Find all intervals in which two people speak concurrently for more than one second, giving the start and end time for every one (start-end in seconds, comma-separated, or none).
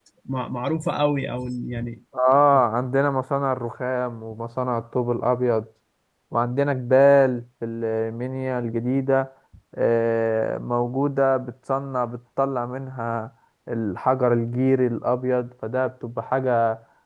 none